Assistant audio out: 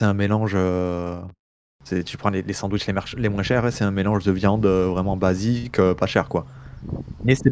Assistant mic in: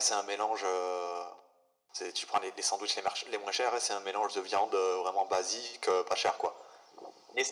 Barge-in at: none

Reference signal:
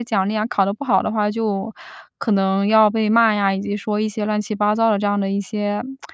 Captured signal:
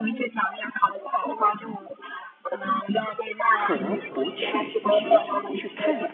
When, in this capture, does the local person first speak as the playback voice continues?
4 s

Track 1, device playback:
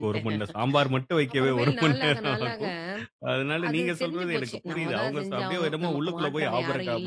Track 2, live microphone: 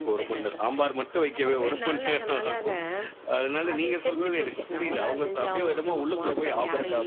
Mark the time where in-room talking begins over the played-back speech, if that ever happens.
none

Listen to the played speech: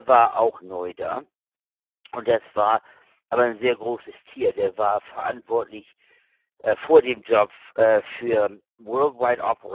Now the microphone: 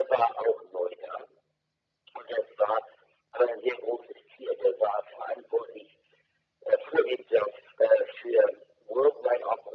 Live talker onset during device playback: none

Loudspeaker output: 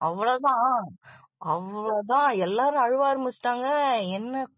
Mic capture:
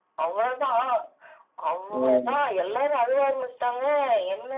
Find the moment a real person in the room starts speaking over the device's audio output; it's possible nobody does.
2 s

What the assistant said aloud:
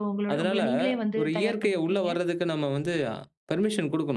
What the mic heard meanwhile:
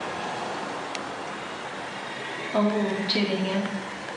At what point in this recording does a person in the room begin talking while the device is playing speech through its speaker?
3 s

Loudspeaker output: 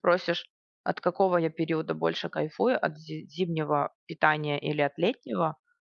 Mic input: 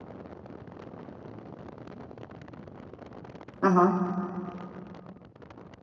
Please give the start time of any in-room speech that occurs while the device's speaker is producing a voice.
4 s

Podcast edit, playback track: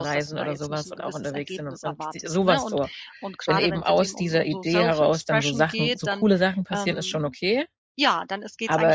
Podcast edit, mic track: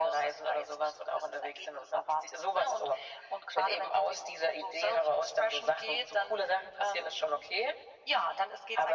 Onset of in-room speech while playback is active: none

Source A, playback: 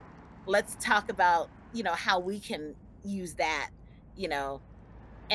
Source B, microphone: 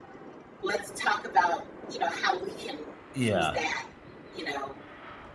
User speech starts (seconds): 3 s

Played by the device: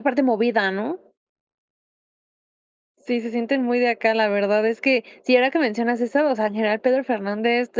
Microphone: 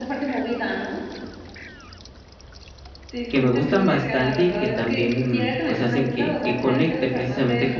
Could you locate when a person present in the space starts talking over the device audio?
3 s

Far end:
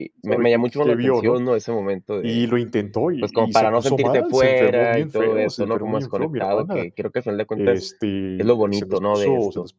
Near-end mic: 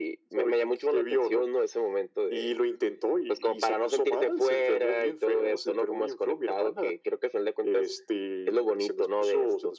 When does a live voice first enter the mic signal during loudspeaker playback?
none

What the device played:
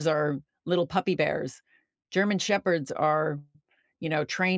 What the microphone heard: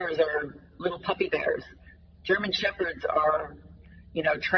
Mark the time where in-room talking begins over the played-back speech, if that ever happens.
none

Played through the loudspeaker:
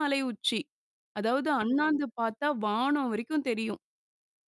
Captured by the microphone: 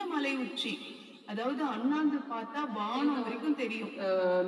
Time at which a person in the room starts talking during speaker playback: 3 s

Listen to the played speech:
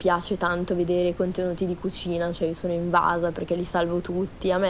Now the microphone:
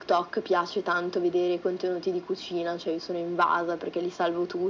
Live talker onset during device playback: none

